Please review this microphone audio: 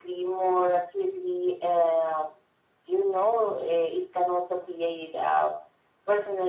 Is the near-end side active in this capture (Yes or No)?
No